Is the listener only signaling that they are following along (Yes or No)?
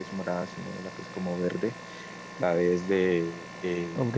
No